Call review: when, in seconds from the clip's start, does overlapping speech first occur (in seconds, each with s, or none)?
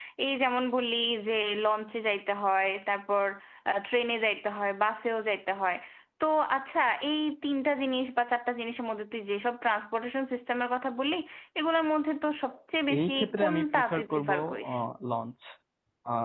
12.9 s